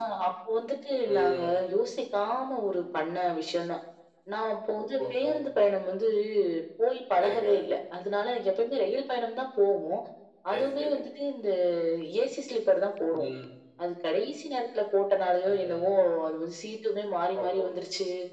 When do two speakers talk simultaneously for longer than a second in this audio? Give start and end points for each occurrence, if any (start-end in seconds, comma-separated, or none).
none